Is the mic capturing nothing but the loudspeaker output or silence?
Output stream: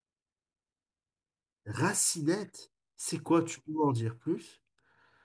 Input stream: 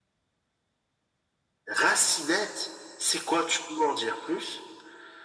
Yes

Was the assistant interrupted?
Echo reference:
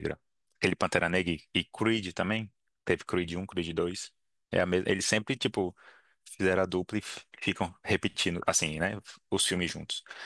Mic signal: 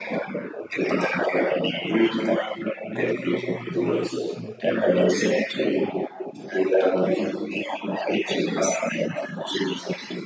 Yes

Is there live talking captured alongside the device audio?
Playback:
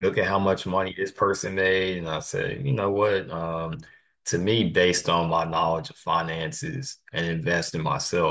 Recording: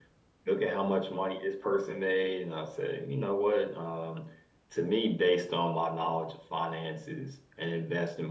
No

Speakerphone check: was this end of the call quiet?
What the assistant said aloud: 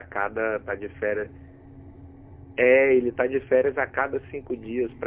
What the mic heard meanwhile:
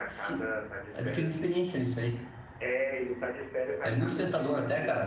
No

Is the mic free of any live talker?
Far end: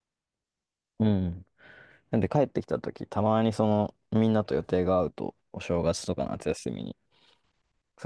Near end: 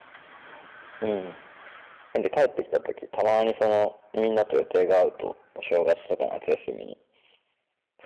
Yes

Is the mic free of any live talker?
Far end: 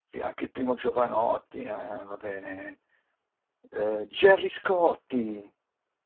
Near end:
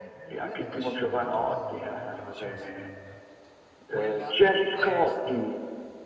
No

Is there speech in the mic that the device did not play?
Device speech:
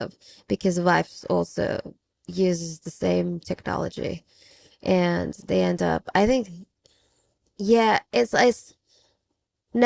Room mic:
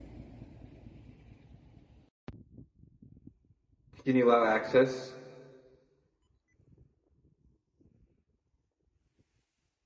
Yes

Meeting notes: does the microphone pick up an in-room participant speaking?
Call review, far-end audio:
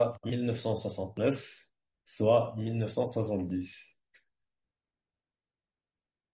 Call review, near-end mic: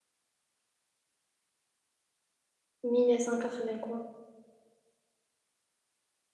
Yes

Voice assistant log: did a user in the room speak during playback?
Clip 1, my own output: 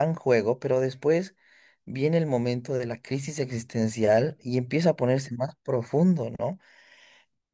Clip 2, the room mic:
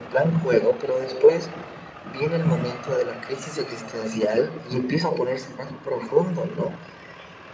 No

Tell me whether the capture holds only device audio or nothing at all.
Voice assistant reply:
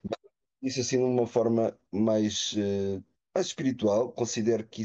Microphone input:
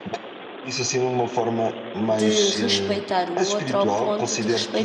No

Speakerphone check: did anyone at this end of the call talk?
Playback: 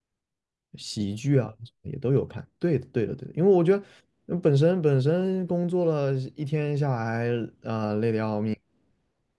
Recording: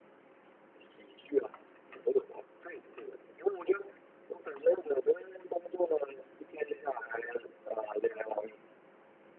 No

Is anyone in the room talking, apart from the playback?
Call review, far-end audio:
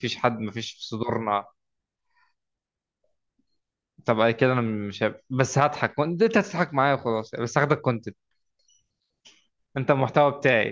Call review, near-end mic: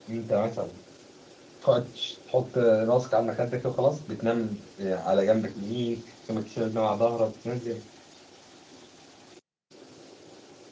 Yes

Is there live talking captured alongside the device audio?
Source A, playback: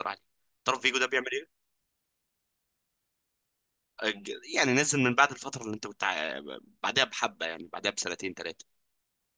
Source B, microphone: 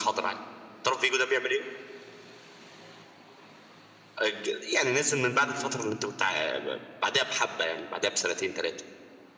No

